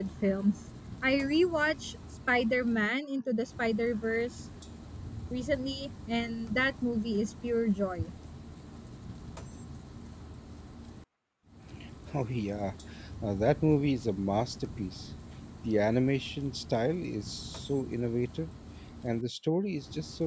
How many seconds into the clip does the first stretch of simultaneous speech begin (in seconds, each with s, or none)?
none